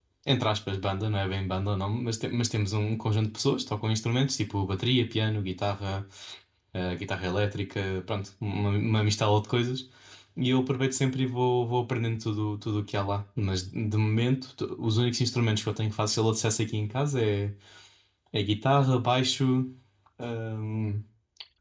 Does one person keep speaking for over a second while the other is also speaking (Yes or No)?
No